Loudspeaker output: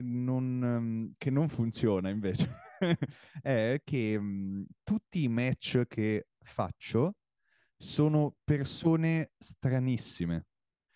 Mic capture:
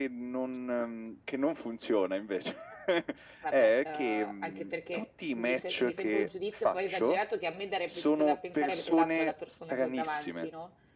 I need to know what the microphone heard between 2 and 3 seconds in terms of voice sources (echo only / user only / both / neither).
echo only